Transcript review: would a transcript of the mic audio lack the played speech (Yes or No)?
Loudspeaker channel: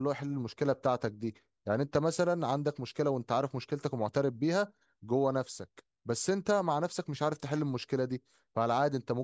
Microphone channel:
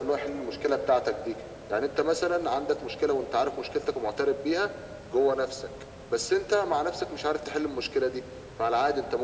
No